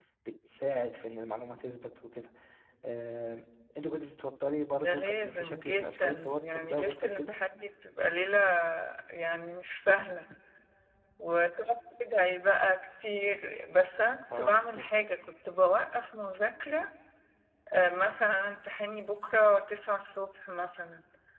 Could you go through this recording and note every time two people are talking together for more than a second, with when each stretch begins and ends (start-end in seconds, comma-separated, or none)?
4.8-7.4